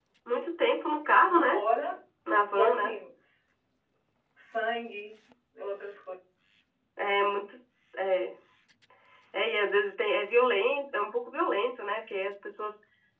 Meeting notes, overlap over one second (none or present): none